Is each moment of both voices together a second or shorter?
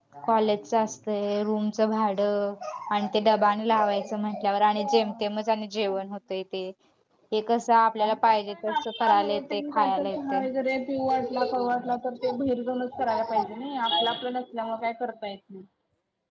No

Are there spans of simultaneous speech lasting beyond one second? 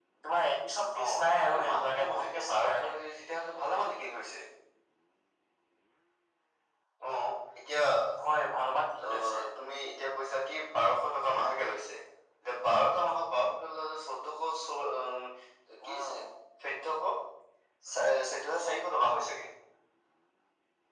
Yes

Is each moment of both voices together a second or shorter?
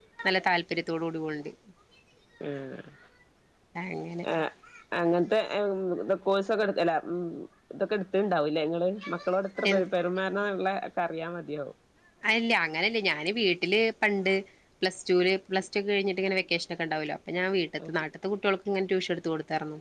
Yes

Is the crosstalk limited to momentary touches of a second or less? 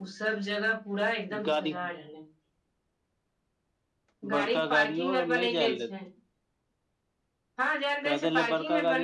No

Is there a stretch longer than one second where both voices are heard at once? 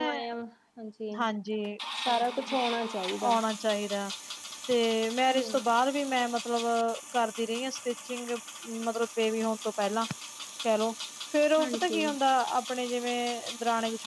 No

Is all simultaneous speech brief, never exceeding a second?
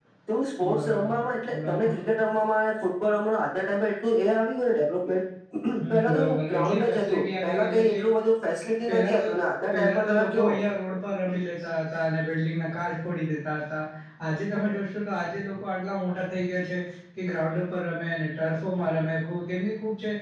No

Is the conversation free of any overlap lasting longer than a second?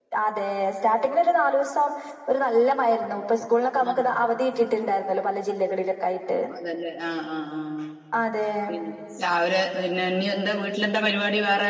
Yes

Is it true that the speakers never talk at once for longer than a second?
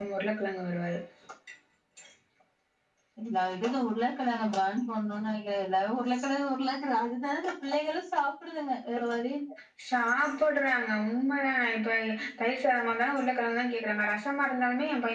Yes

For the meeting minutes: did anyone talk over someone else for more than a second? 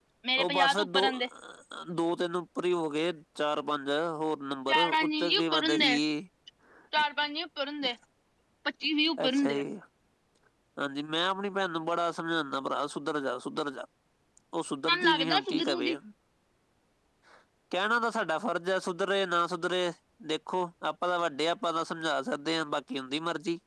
Yes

